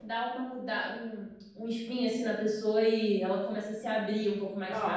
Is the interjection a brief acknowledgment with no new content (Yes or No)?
No